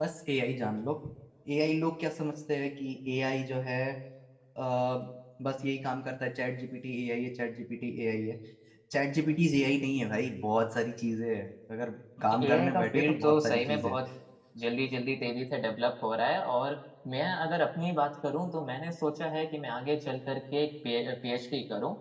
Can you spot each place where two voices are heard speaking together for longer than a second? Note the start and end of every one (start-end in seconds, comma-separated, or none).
12.4-14.0